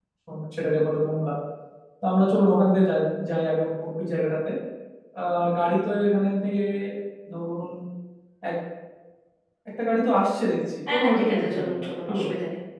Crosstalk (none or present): present